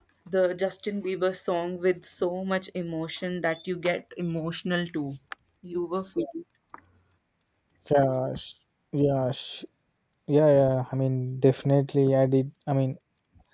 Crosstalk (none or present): none